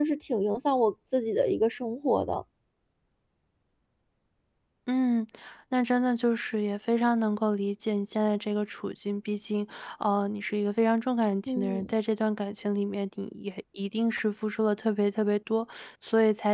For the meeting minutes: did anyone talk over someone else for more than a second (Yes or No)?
No